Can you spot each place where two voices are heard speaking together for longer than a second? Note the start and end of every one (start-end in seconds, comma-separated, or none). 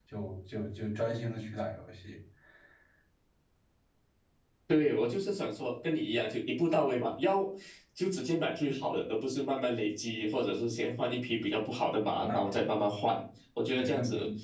none